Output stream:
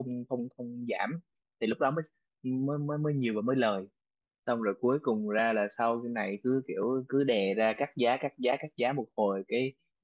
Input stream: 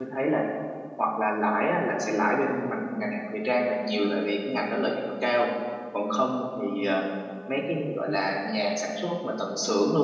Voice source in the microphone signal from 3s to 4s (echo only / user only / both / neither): user only